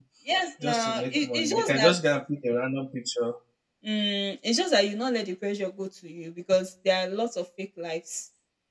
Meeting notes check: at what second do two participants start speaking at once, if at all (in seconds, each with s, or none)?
0.6 s